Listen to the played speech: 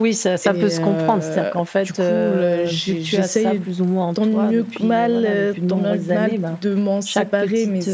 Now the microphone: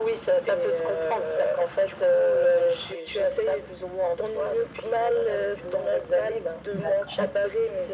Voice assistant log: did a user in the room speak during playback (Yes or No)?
Yes